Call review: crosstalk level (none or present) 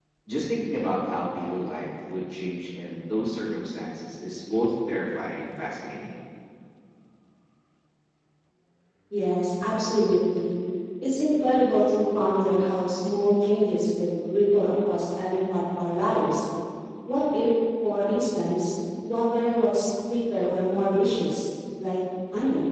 none